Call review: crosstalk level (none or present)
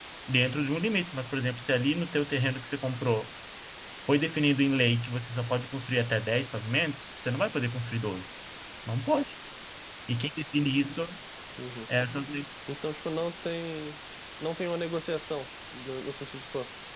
none